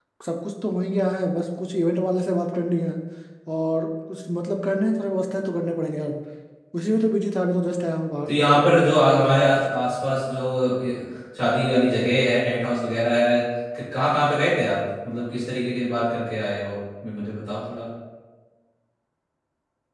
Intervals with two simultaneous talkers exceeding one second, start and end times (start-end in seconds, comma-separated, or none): 8.3-9.6